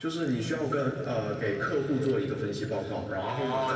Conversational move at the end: taking over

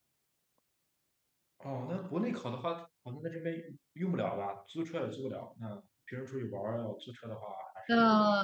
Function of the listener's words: taking over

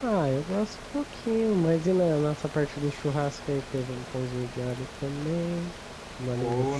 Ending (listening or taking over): taking over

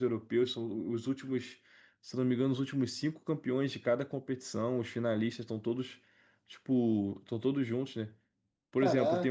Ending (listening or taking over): listening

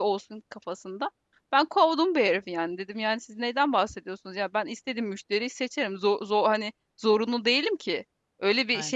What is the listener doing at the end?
listening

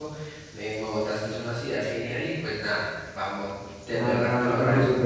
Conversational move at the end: taking over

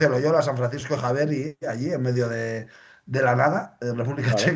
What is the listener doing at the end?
listening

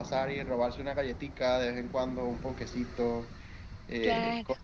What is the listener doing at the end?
listening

